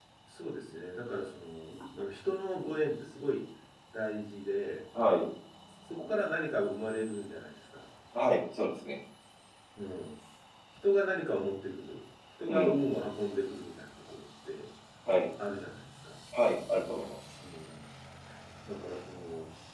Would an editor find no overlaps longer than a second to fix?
Yes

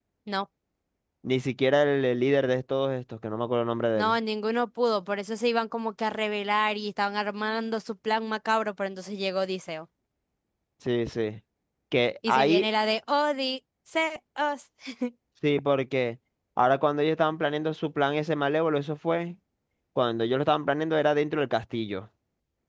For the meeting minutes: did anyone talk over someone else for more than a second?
No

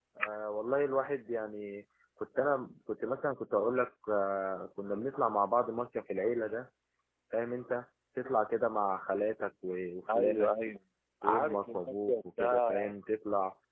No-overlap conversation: No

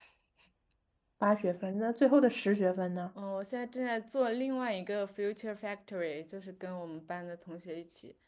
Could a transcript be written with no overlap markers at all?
Yes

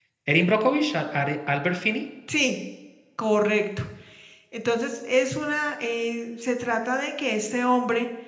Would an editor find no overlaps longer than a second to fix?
Yes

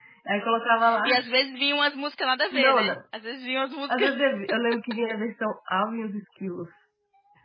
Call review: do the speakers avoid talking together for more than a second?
Yes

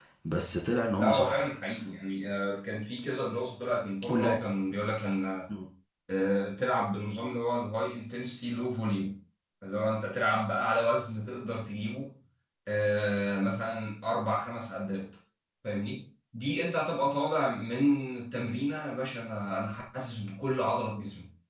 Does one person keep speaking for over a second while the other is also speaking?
No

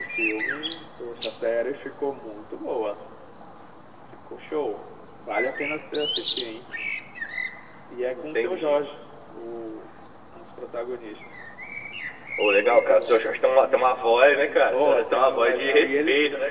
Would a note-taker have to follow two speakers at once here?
Yes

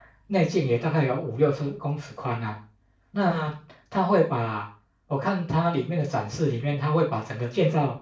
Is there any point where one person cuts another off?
No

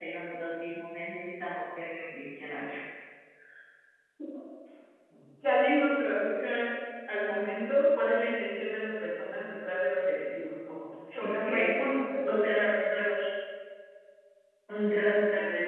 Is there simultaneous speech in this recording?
Yes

